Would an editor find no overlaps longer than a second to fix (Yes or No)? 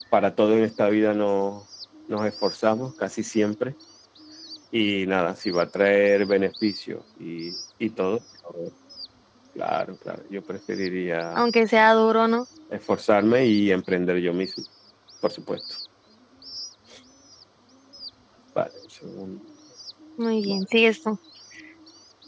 Yes